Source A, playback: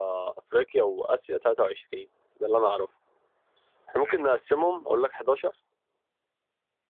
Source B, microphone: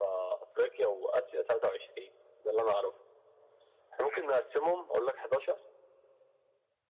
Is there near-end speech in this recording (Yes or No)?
No